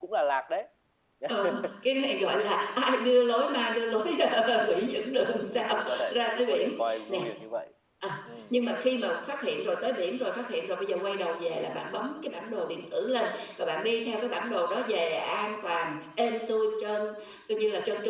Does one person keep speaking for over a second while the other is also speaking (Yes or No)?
Yes